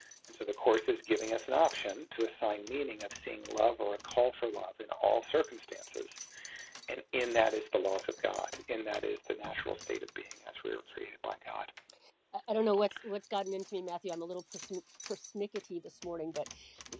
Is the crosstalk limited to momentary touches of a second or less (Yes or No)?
Yes